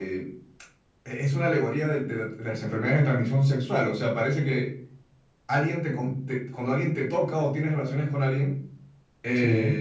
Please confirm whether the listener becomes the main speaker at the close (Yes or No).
No